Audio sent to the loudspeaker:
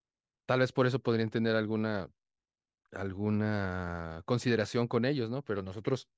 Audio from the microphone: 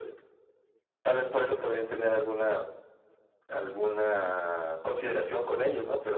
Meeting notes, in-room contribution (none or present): none